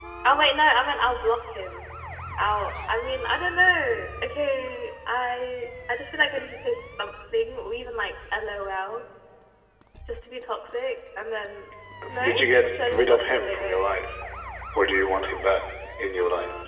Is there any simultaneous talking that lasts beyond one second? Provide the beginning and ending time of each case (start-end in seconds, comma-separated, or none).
12.2-13.8